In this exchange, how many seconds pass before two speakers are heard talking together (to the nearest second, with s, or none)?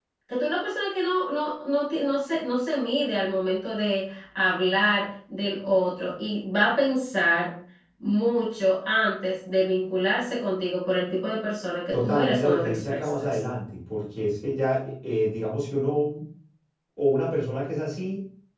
12 s